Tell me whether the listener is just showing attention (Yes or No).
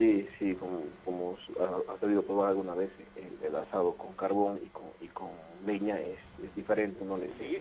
No